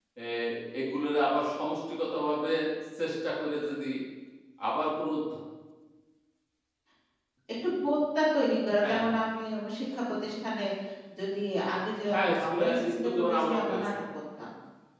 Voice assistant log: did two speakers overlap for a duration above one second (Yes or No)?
Yes